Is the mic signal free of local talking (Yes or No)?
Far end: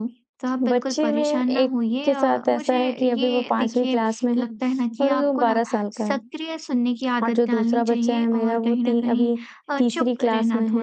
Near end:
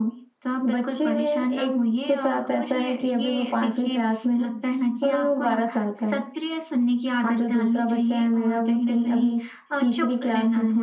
Yes